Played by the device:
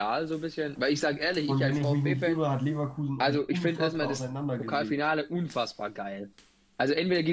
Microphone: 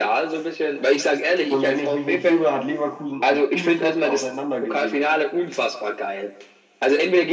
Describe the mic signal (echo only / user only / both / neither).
echo only